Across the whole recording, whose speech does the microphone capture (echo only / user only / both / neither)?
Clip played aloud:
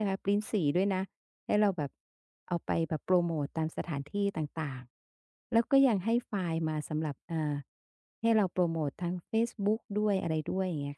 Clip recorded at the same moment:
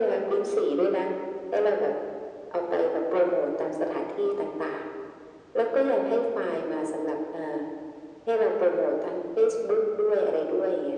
echo only